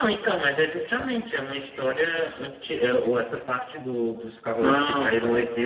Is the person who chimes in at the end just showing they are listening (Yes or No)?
No